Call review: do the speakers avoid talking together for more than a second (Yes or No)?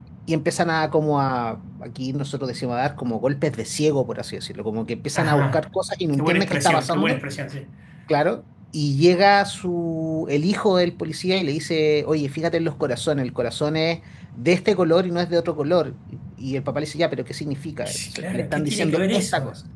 No